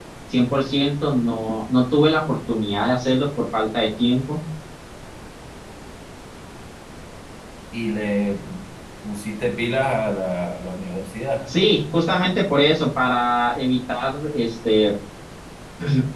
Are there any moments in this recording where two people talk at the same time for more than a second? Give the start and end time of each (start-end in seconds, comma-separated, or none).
none